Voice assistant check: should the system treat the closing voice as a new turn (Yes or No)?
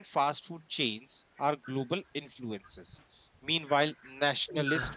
No